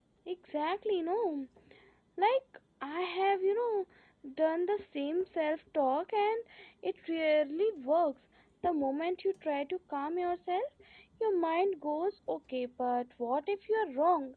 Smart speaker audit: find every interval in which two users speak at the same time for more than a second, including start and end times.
none

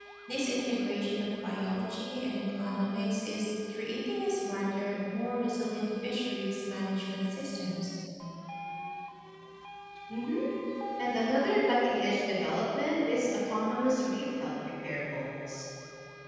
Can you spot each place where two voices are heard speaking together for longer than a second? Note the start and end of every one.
none

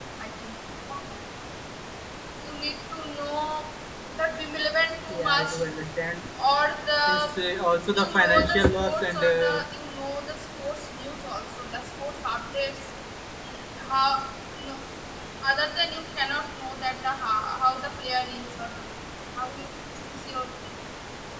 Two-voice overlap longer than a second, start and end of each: 8.0-9.6

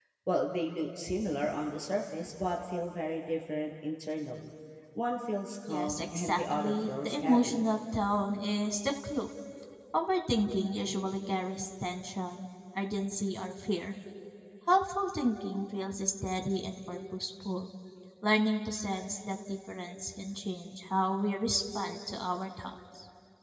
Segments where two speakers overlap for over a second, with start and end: 5.7-7.5

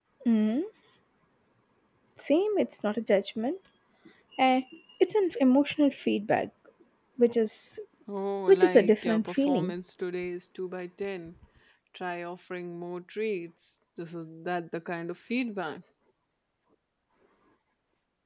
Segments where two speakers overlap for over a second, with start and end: 8.5-9.7

